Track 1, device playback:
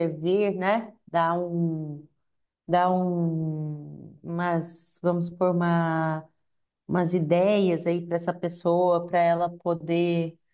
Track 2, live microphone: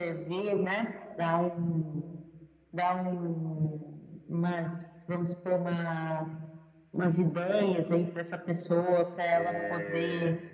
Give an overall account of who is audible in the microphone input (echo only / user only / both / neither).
both